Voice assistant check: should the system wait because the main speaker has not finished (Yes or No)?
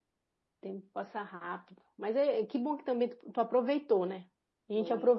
Yes